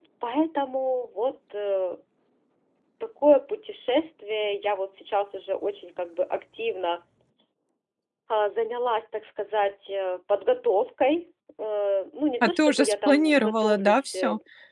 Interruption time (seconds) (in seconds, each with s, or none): 12.4 s